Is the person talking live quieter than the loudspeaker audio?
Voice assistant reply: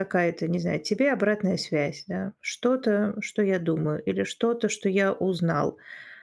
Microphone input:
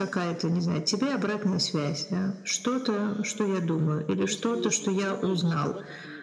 Yes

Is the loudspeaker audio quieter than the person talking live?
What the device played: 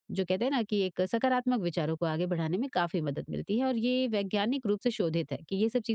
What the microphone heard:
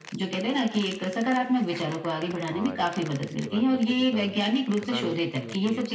No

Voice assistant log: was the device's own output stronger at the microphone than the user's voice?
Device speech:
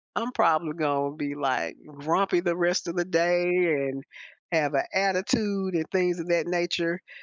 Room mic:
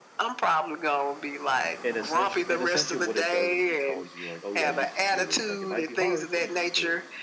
Yes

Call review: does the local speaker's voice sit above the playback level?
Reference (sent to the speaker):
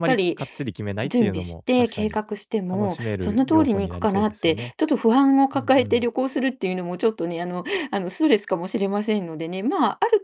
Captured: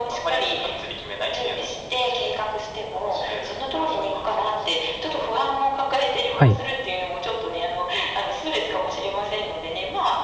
Yes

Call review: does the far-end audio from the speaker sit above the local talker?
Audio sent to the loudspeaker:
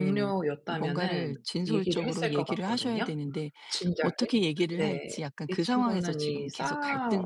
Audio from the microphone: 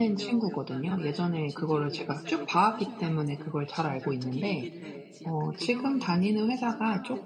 No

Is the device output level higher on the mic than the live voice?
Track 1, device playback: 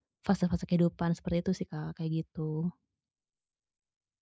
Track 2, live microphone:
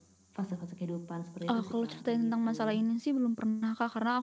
No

